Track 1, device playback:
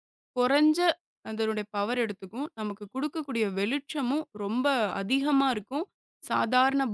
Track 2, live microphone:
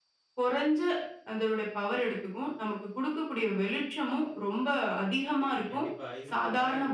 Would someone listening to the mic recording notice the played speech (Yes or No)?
Yes